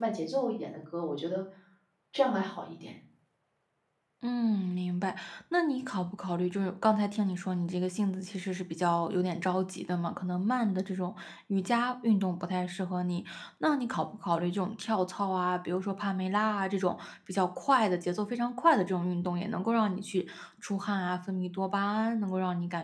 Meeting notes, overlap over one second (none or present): none